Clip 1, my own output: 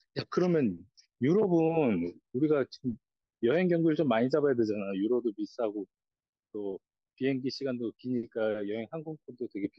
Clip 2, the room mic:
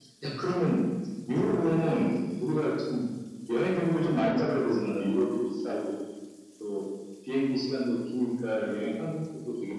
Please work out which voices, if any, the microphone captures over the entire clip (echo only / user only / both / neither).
echo only